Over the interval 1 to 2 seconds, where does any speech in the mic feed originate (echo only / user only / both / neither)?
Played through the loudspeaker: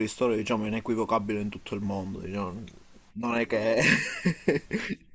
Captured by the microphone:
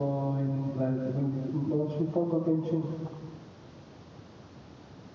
user only